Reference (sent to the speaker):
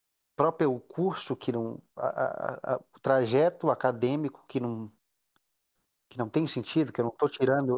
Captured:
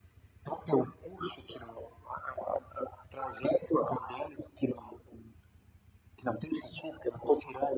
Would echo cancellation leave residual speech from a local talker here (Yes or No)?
No